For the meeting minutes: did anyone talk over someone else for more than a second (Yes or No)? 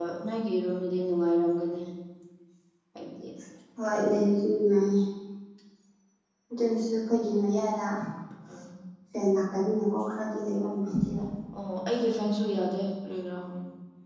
No